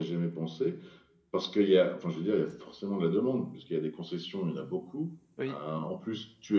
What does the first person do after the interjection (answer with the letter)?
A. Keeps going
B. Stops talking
A